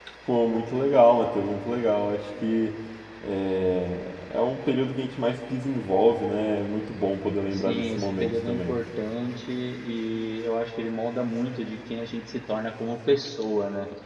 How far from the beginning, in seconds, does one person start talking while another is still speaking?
8 s

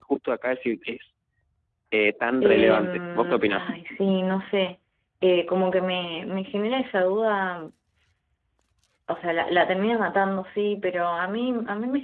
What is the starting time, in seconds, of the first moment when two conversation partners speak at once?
2 s

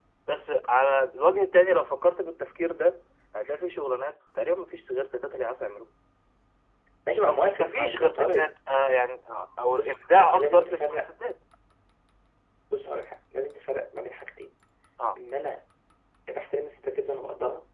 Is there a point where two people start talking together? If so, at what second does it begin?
7 s

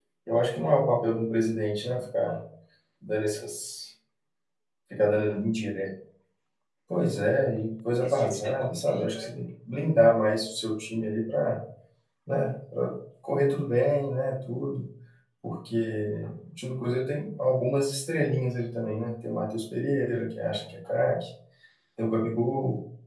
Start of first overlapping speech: 8 s

